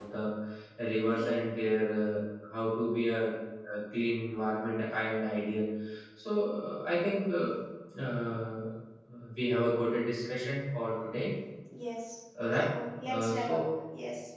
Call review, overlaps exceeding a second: none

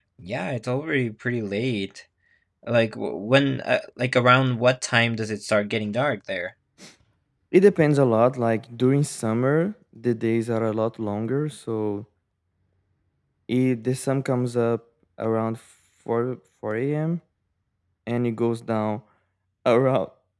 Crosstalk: none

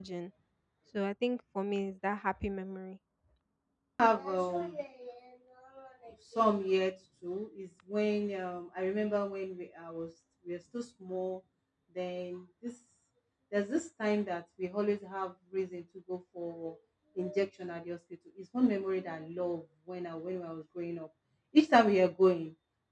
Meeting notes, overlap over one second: none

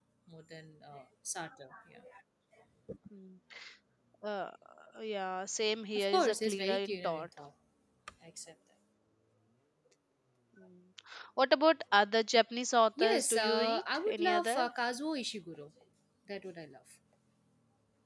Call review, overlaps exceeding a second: present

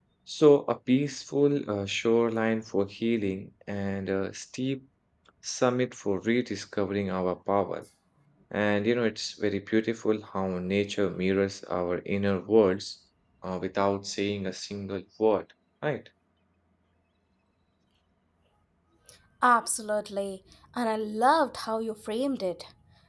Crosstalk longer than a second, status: none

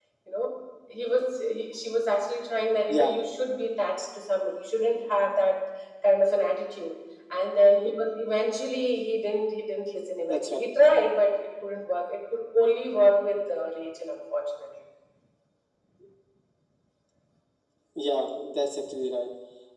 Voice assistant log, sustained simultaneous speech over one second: none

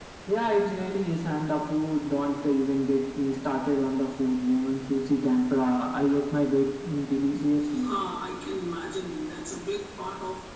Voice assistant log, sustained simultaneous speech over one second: none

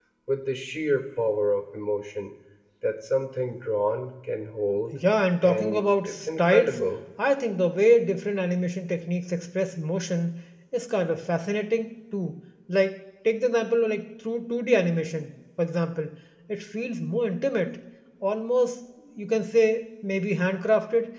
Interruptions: present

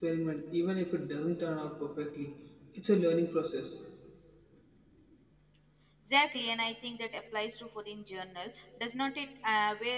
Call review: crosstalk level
none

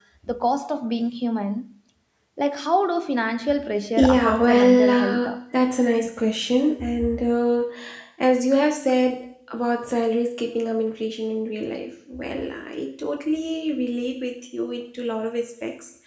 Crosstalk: present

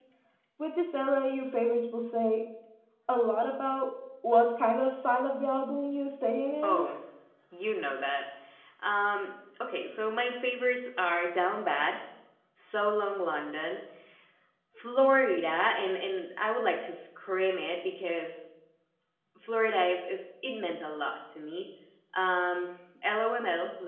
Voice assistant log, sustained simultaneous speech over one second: none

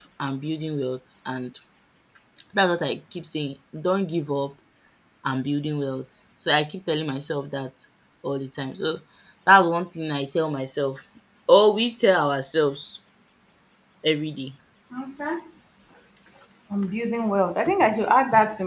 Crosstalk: none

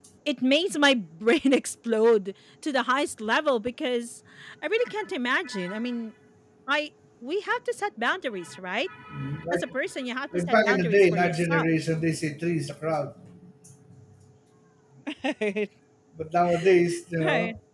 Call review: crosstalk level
present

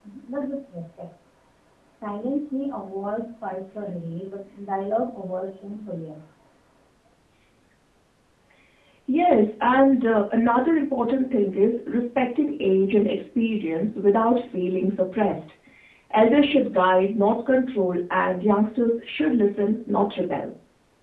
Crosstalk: none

